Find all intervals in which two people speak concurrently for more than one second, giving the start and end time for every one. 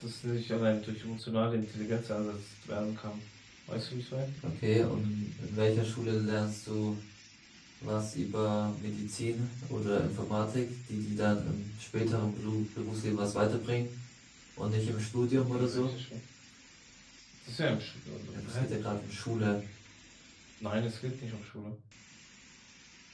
none

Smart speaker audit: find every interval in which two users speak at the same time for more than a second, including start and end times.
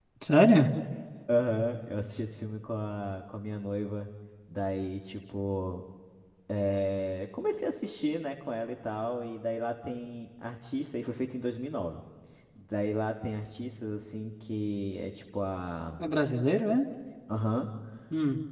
none

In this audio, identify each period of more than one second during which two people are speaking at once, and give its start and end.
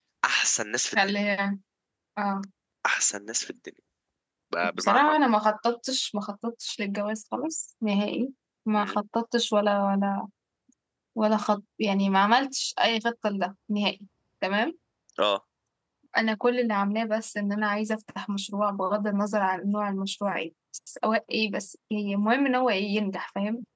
none

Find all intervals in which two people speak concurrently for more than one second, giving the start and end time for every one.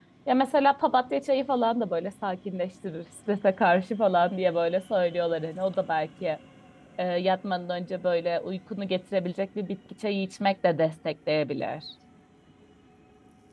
none

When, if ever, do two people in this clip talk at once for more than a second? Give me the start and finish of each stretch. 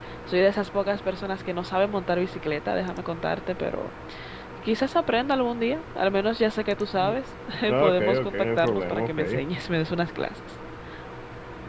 7.8-9.2

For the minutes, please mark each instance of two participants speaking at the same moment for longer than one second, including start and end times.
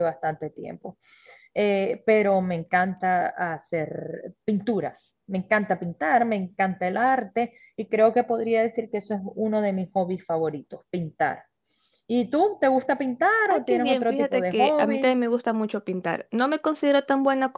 13.4-15.2

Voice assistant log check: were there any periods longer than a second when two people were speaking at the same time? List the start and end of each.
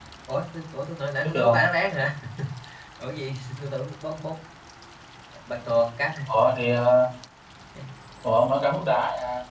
none

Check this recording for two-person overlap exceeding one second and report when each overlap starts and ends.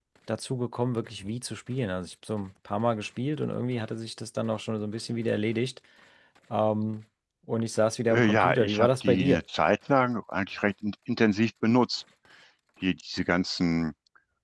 8.1-9.4

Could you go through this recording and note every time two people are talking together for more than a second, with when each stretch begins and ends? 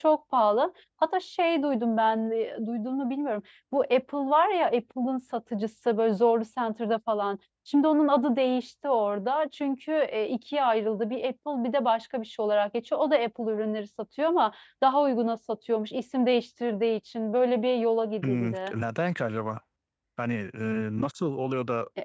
none

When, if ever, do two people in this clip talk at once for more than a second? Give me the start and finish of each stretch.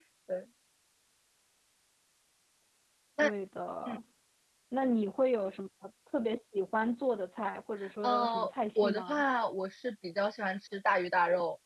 8.0-9.2

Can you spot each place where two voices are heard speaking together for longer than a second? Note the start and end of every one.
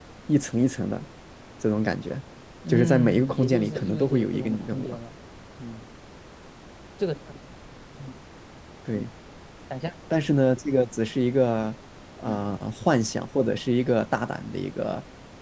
2.7-5.0

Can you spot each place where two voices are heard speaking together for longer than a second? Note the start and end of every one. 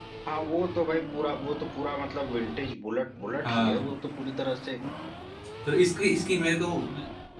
none

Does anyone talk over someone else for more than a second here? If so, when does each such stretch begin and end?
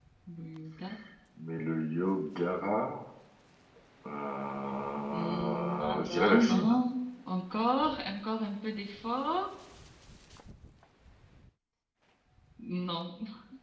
5.1-6.7

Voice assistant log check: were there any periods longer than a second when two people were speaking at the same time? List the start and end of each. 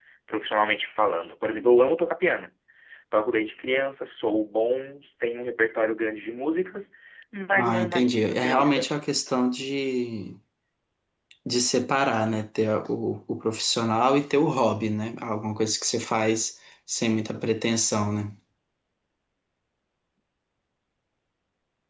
7.6-8.9

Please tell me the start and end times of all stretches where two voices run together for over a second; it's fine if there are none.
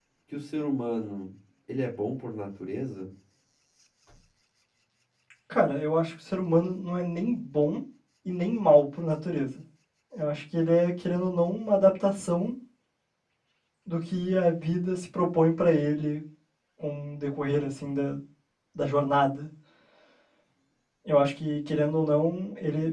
none

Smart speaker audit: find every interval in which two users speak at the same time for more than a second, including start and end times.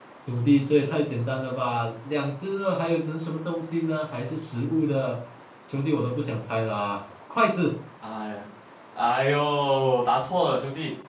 none

